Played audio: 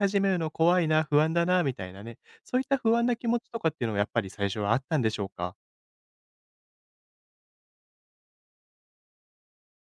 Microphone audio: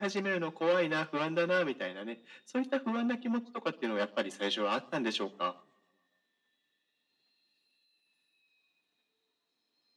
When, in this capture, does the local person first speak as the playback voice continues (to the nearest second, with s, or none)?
none